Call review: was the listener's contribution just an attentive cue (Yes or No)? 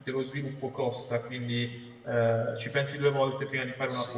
No